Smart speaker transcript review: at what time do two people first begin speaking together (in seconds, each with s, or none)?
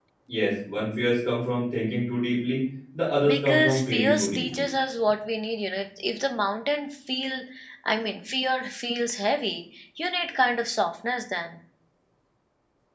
3.2 s